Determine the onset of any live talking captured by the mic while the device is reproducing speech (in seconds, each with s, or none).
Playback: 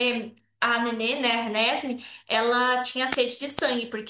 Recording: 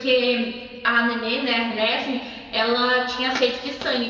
none